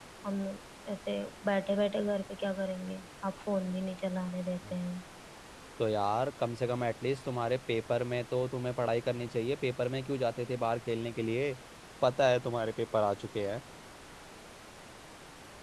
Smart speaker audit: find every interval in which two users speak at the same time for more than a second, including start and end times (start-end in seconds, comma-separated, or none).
none